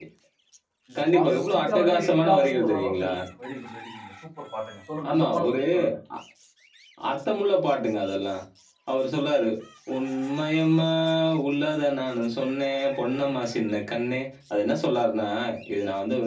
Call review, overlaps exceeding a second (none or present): present